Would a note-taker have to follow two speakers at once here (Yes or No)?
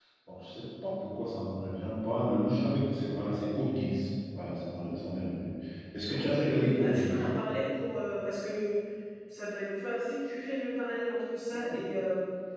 Yes